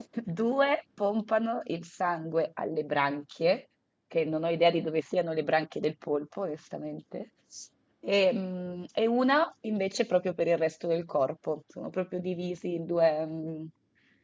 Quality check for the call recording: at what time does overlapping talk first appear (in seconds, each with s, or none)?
none